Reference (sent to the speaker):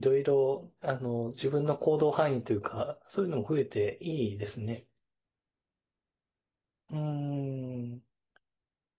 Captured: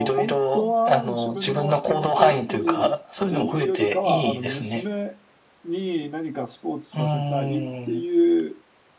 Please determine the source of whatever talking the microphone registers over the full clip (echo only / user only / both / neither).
both